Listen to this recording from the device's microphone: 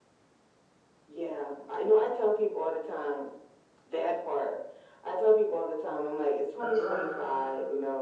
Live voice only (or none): That's right.